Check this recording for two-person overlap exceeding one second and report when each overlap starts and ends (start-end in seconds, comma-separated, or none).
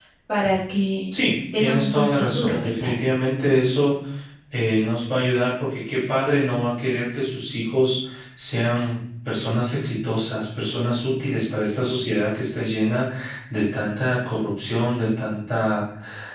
1.6-2.9